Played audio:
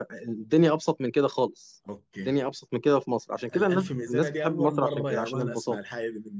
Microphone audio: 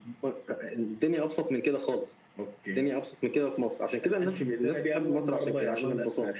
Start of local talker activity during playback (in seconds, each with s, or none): none